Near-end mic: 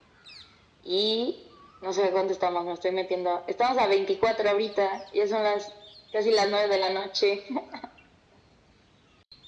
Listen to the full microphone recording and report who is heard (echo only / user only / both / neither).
echo only